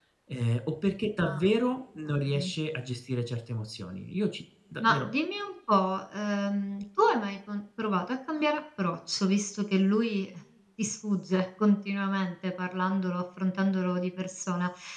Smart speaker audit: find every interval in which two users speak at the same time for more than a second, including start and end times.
none

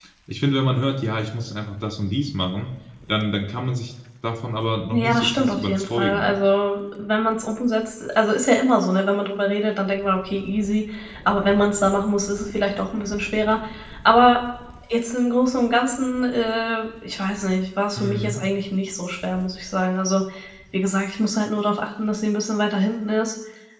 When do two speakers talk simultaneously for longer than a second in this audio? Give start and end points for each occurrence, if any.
4.9-6.3

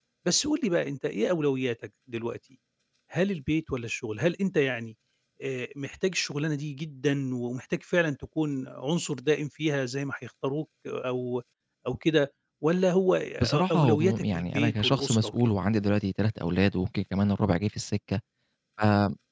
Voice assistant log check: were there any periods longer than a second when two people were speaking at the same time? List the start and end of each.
13.4-15.4

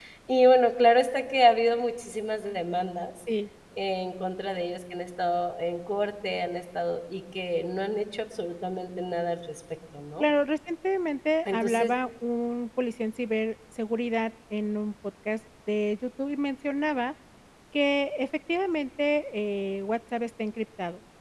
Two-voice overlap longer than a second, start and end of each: none

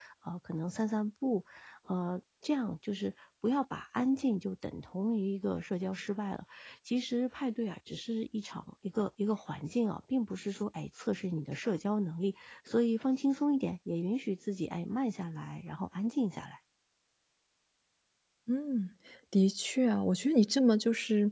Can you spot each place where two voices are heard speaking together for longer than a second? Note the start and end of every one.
none

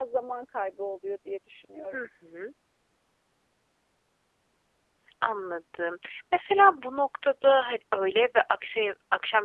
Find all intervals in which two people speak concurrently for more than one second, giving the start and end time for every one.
none

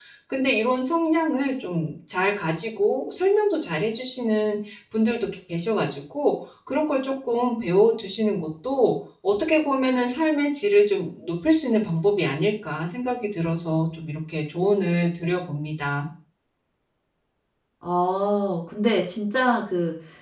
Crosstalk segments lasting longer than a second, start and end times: none

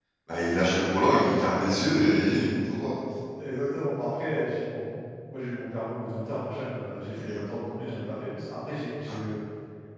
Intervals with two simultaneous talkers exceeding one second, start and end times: none

